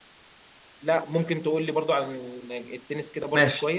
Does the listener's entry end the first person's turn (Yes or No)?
Yes